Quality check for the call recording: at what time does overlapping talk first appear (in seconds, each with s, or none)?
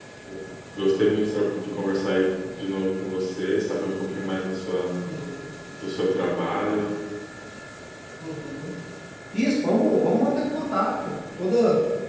none